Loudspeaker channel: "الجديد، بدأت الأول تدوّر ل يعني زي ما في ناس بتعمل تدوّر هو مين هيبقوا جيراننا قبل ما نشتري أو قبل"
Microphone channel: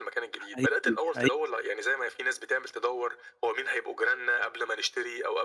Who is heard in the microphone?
both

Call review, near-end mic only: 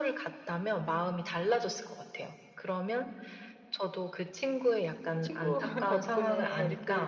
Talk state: both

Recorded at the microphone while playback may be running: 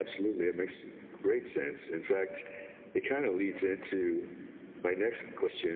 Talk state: echo only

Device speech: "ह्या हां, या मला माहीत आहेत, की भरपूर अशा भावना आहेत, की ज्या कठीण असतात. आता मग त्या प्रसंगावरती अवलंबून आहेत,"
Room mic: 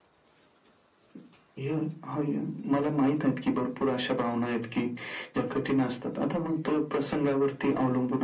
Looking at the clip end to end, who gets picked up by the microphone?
echo only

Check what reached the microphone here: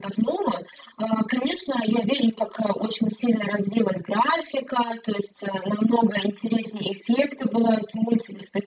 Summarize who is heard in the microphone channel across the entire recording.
echo only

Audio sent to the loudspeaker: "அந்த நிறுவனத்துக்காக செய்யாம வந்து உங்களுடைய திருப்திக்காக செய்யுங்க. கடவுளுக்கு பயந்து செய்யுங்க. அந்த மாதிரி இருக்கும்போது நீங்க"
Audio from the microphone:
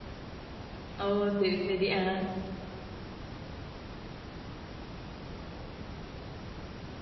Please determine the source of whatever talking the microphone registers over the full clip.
user only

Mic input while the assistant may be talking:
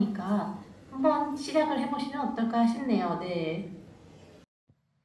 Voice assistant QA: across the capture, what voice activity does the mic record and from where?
echo only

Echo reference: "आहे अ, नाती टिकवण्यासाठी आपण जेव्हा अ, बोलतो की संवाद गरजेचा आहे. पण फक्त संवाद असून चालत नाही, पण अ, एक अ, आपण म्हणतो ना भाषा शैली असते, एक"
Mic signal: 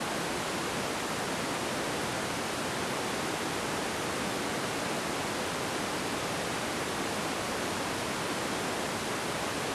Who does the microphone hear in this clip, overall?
neither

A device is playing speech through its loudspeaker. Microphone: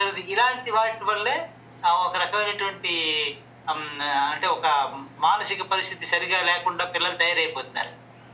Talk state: echo only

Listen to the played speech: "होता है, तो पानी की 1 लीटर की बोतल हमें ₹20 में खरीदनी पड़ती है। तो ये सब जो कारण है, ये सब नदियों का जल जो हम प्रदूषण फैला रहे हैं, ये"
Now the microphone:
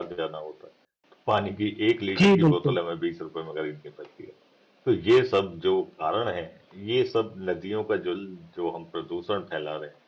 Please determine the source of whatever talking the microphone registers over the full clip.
both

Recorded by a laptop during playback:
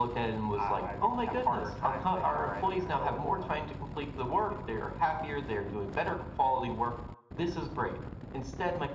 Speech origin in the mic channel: echo only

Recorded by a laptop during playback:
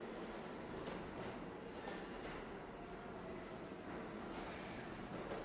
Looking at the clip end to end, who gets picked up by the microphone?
neither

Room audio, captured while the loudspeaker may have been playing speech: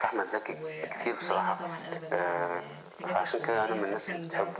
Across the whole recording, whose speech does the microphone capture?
both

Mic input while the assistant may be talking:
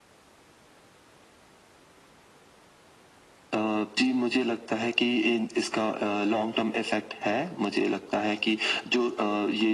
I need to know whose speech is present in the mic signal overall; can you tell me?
echo only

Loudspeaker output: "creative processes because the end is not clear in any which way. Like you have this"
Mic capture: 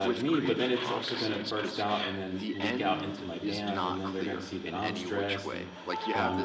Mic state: both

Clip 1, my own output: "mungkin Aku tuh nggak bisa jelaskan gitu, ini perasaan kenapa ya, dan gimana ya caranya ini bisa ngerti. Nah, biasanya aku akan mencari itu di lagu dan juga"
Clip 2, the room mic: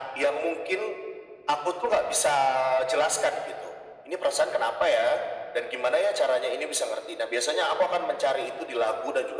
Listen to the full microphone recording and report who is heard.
echo only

